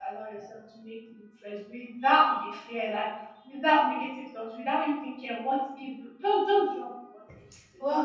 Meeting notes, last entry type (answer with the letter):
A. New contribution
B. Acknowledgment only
A